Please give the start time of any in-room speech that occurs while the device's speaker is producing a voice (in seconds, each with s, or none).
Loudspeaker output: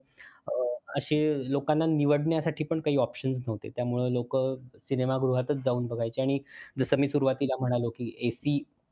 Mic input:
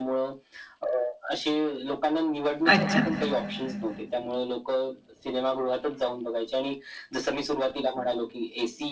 2.6 s